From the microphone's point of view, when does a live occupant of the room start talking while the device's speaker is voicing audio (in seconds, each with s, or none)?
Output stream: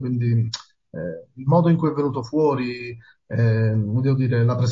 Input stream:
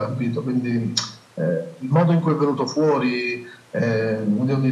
none